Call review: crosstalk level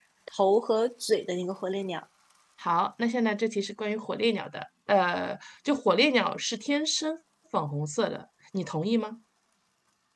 none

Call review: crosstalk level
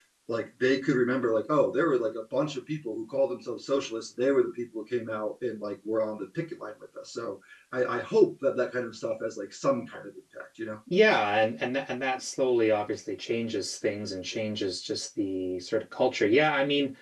none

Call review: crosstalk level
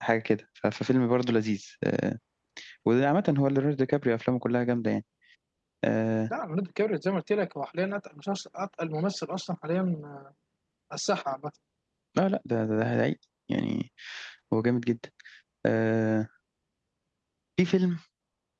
none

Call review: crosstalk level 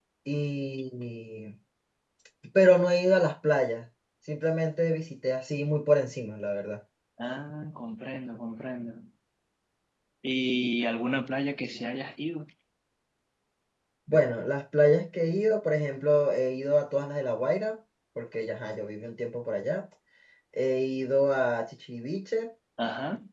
none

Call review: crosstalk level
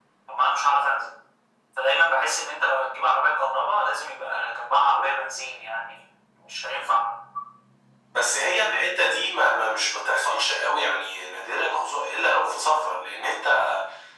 none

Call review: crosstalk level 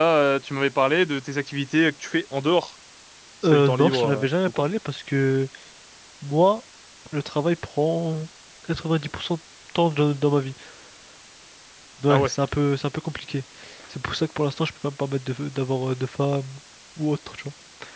present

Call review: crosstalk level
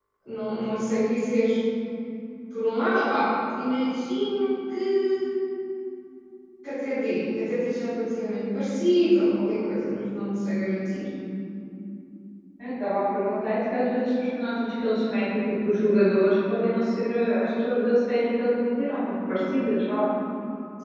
none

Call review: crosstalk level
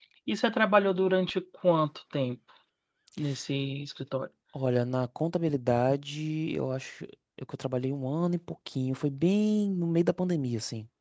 none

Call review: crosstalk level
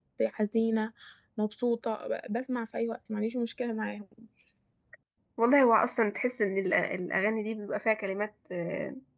none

